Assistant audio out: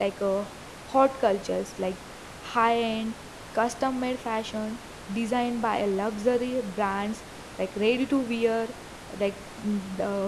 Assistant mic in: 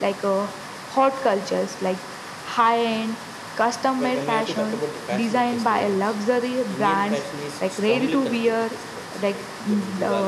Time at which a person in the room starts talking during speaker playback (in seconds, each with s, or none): 4.0 s